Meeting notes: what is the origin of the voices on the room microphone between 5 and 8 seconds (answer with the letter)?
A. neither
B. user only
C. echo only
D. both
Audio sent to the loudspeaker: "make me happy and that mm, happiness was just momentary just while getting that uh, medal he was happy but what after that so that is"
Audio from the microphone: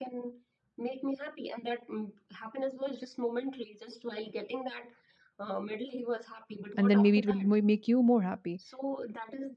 D